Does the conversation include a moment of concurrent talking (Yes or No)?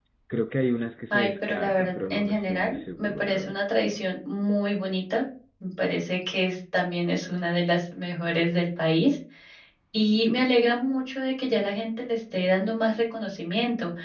Yes